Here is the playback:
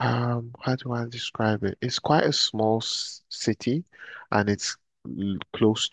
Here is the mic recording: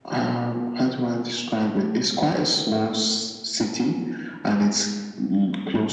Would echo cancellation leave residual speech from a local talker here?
No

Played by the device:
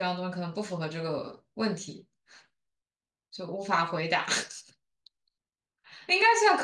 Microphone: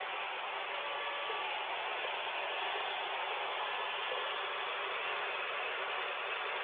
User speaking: No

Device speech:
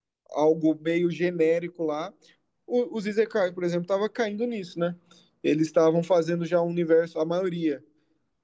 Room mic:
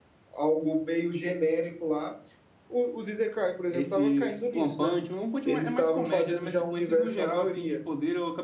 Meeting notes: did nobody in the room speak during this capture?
No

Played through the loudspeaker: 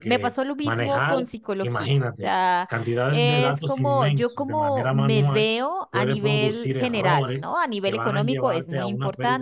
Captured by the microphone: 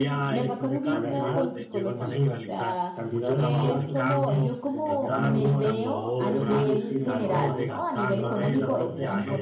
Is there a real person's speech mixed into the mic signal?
Yes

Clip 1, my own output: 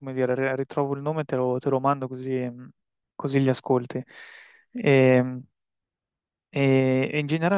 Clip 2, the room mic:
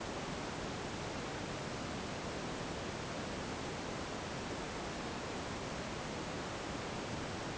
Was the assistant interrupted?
No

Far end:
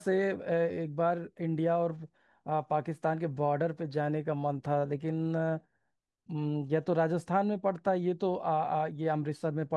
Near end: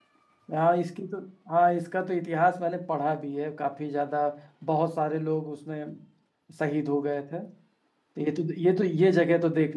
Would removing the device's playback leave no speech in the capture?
No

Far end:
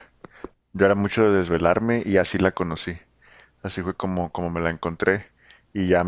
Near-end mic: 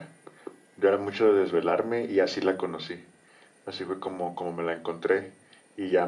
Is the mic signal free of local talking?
Yes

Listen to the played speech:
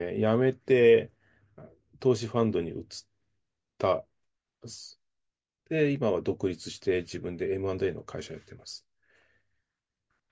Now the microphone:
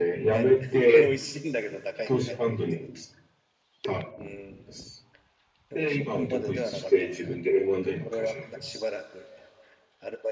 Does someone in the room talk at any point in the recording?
Yes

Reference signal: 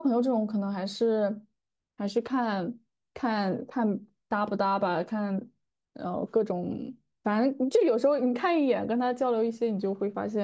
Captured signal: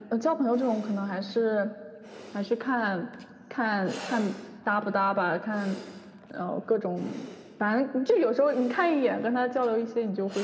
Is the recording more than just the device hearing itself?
No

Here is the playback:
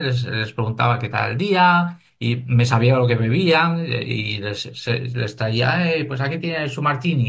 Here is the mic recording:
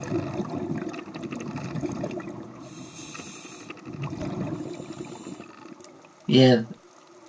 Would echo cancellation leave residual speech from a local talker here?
Yes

